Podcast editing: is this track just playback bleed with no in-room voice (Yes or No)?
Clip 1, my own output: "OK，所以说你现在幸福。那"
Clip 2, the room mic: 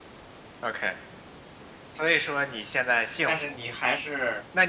No